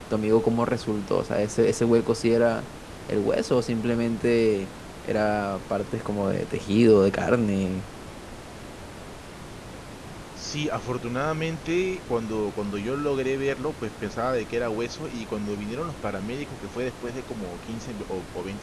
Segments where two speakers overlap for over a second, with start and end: none

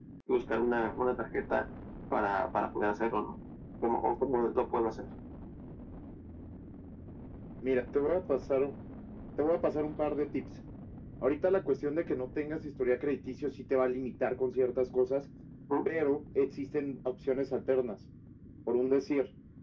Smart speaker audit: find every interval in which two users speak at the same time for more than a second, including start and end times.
none

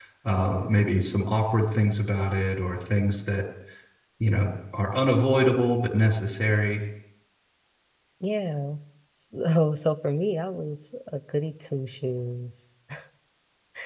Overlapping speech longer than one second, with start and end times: none

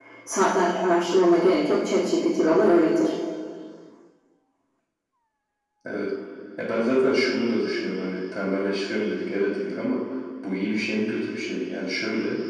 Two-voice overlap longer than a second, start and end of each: none

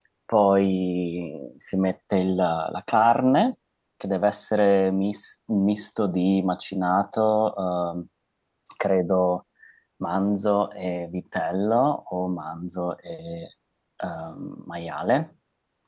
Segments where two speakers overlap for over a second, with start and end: none

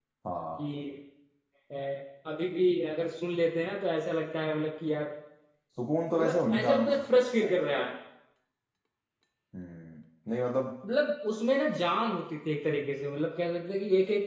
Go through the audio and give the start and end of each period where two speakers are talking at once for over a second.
6.1-7.5

